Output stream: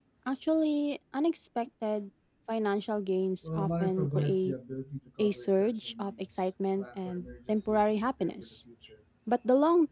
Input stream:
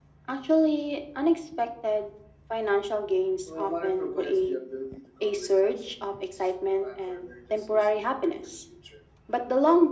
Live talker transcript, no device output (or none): none